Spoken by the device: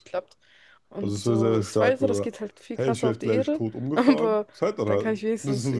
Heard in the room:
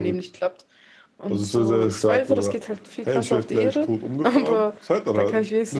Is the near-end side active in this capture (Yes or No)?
No